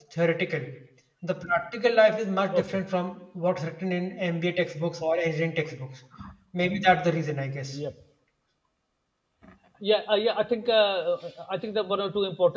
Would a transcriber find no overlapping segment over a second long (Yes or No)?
Yes